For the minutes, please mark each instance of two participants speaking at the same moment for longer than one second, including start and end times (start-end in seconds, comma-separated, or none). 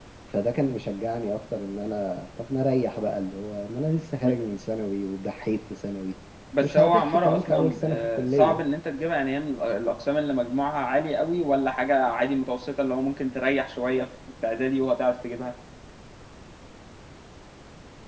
6.6-8.6